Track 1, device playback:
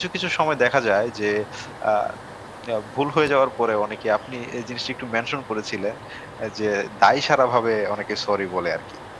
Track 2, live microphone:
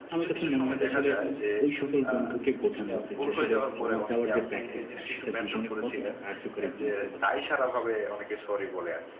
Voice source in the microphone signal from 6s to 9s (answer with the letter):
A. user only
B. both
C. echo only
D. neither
B